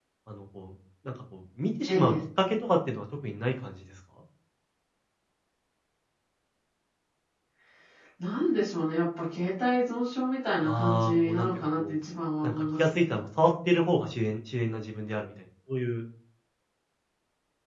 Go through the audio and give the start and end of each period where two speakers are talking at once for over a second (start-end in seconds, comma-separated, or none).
10.6-12.0